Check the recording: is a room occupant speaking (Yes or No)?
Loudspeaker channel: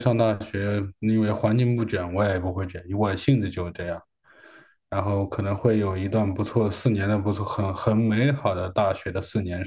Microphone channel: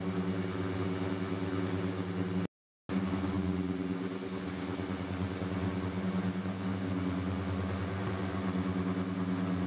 No